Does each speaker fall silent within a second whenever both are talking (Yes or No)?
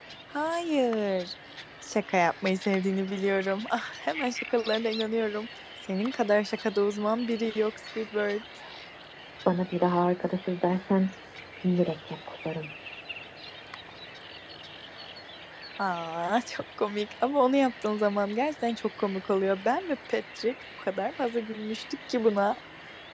Yes